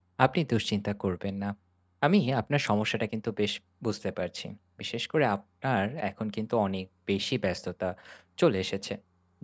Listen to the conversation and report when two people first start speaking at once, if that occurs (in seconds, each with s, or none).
none